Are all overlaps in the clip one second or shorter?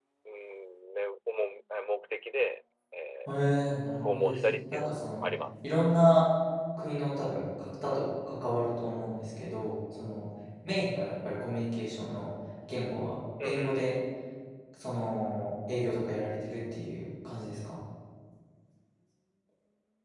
No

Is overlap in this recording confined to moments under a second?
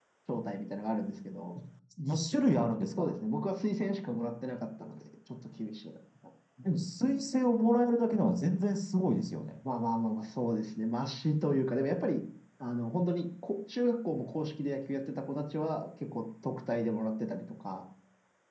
Yes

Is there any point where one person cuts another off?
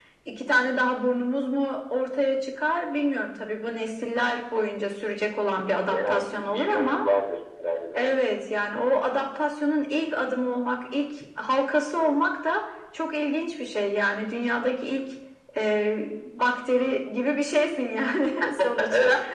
Yes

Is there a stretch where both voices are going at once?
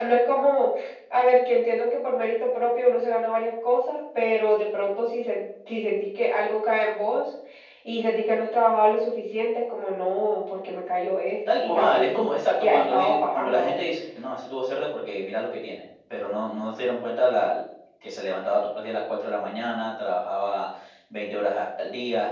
Yes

